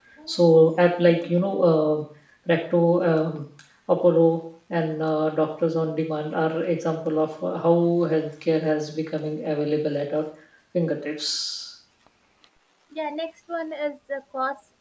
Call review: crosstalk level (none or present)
none